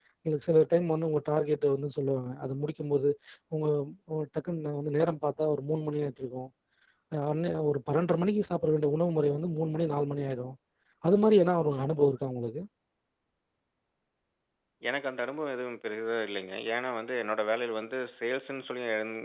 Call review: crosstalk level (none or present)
none